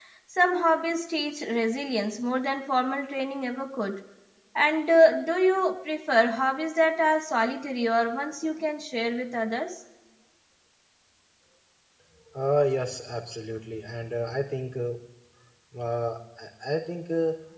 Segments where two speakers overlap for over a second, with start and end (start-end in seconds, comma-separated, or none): none